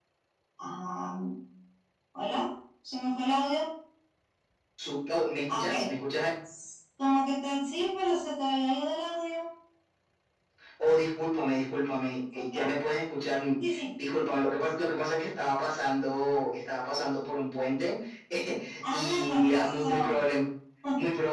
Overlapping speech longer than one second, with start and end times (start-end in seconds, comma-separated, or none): 18.9-20.2